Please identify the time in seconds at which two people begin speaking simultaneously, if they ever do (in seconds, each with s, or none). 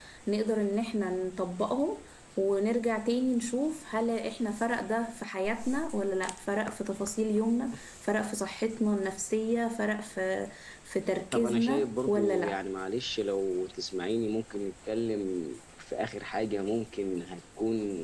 11.3 s